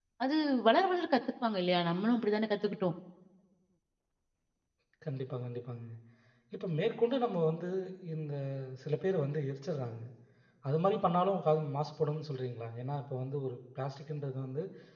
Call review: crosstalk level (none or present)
none